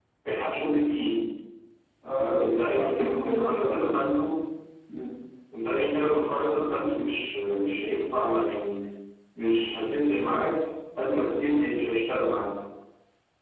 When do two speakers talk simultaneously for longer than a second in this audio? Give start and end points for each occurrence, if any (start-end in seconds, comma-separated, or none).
2.1-4.0